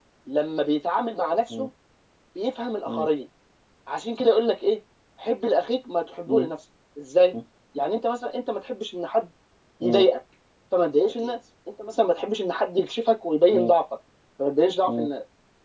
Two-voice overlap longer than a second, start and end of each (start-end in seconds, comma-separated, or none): none